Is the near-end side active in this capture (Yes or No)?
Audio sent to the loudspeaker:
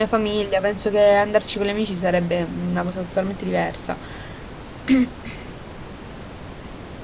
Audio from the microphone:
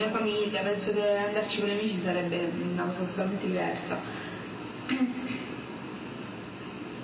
No